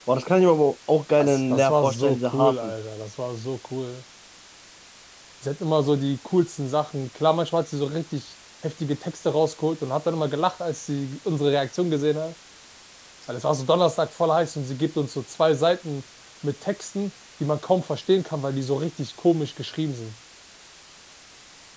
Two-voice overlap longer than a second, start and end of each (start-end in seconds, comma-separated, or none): 1.2-2.7